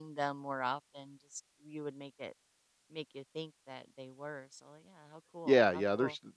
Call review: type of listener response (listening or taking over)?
taking over